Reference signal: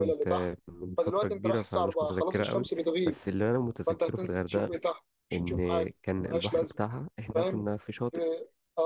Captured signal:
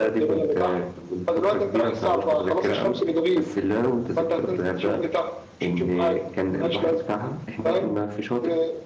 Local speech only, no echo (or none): none